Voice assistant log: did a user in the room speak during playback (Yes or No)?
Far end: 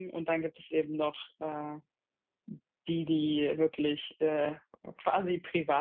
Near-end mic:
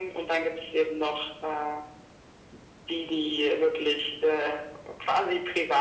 No